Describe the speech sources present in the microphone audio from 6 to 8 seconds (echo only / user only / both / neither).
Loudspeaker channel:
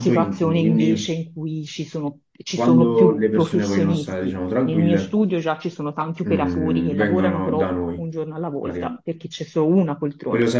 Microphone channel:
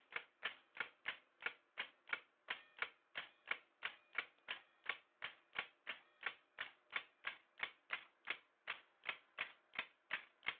neither